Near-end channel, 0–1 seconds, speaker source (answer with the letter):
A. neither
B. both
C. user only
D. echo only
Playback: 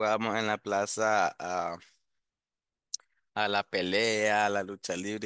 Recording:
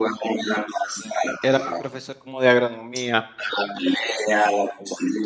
D